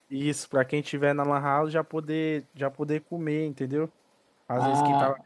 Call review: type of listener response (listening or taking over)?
taking over